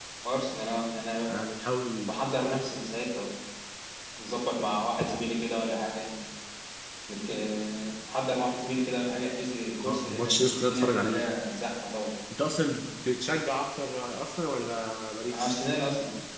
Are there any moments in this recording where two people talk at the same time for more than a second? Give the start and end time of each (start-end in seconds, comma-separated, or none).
9.8-11.2